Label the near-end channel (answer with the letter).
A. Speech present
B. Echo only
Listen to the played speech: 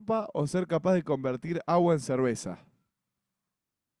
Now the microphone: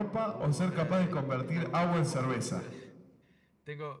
A